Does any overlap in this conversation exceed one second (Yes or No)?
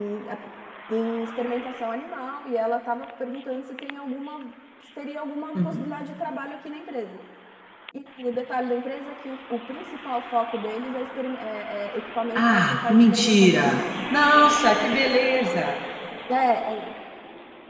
Yes